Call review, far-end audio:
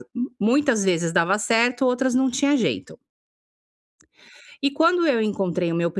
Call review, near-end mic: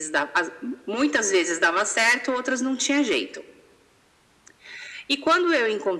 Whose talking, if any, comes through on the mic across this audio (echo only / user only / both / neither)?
echo only